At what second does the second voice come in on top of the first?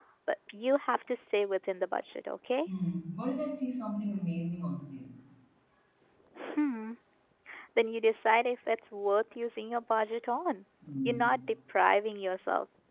none

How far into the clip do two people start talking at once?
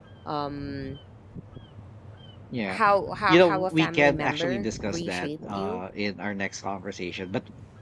3.3 s

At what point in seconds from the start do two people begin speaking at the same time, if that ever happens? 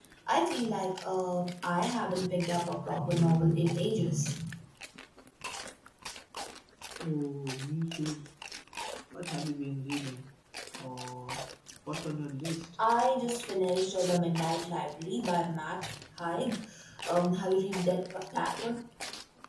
none

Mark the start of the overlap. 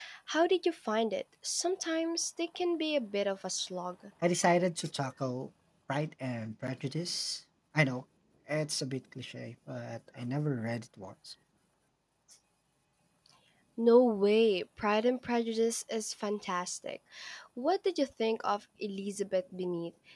none

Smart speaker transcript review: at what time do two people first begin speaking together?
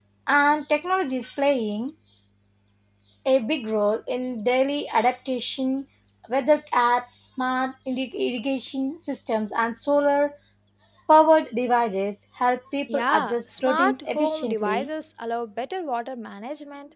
12.9 s

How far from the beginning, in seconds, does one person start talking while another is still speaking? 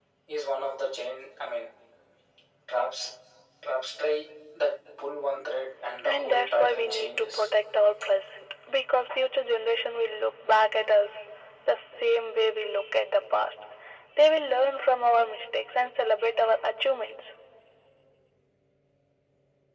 6.0 s

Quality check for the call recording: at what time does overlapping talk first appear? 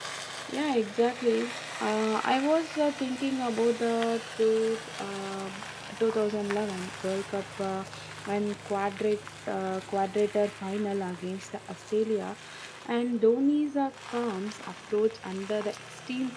none

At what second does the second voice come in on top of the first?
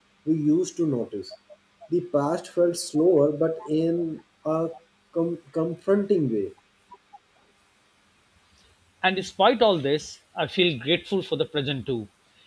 none

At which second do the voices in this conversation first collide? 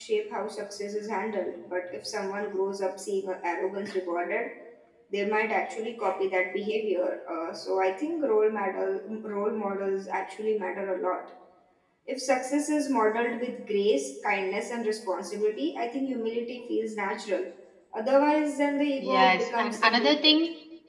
19.0 s

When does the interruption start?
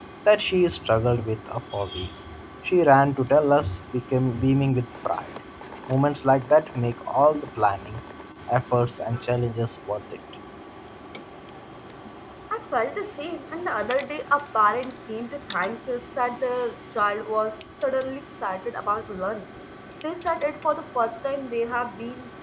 none

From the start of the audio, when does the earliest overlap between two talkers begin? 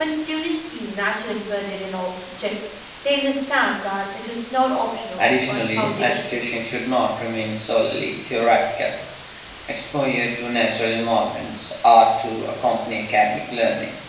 5.2 s

